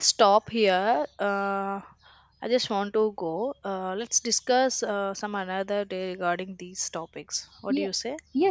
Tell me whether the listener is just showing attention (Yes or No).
No